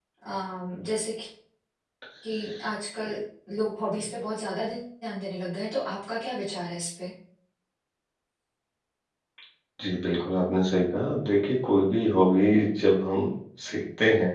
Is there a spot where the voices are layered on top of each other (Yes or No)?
No